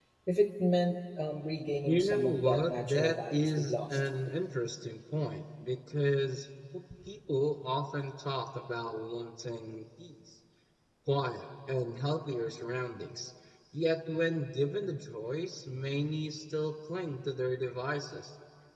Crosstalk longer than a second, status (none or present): present